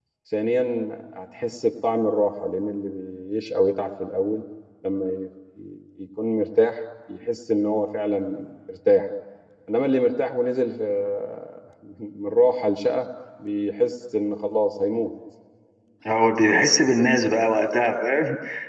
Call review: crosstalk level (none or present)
none